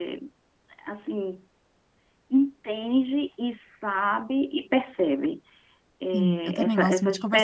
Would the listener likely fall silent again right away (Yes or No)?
No